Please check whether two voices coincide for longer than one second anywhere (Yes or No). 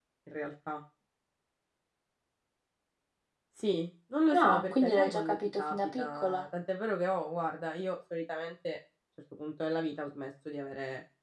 Yes